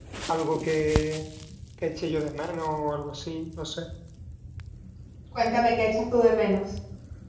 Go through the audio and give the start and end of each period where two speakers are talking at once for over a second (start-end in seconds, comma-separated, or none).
none